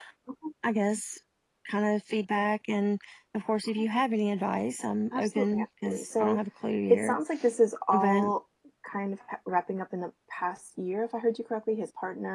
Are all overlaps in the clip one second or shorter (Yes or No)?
No